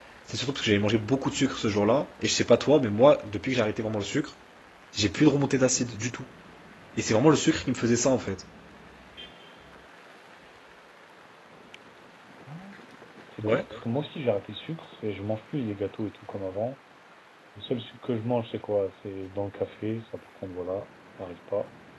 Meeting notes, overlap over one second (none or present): none